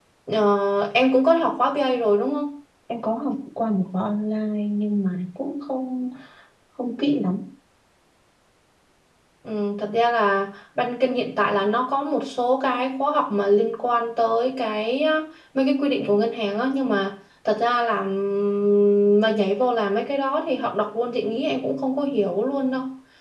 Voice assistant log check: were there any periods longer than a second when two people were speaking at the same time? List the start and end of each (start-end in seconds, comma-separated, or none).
none